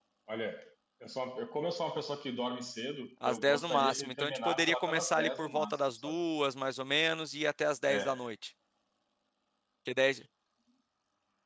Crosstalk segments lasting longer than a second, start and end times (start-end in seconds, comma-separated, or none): 3.2-6.2